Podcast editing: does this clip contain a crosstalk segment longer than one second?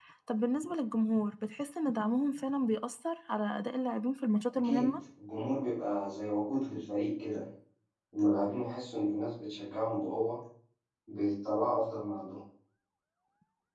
No

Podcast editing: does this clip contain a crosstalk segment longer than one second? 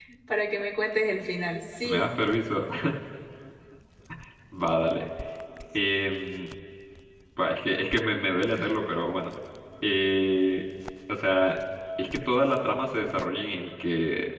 No

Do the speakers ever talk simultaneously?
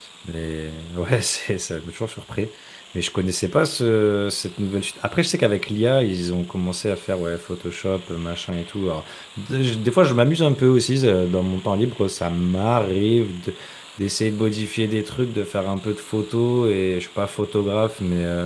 No

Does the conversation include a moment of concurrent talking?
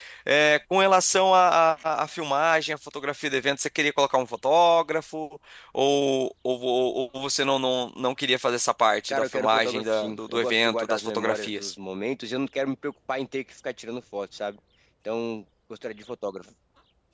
Yes, from 9.1 s

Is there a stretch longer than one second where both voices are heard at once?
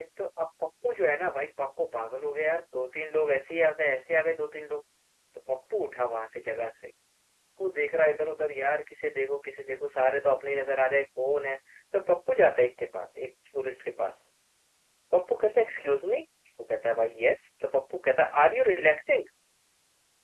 No

